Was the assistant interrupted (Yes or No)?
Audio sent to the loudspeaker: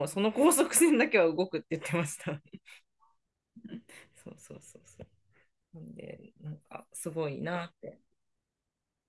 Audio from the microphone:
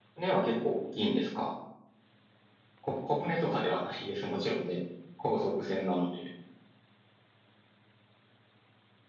Yes